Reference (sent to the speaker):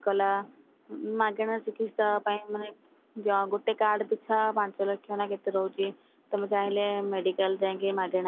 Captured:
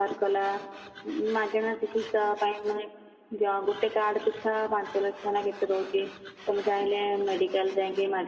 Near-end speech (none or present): none